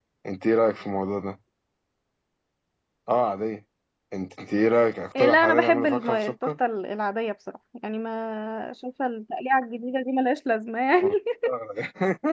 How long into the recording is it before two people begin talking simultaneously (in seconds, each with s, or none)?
5.2 s